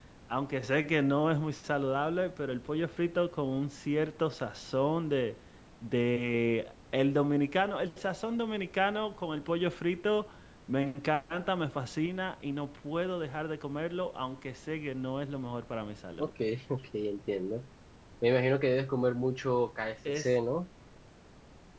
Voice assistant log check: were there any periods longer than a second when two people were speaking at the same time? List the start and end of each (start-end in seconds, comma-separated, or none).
none